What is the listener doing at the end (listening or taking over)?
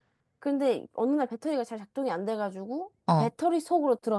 listening